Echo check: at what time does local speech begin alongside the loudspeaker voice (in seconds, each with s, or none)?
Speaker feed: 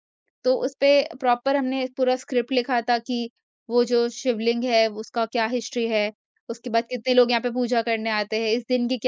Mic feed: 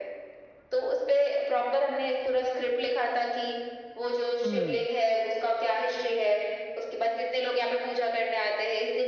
4.5 s